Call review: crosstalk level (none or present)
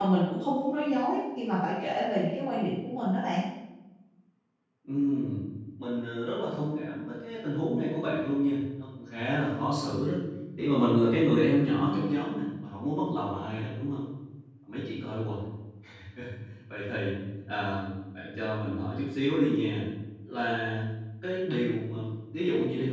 none